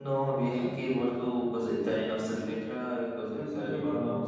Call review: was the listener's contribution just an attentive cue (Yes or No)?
Yes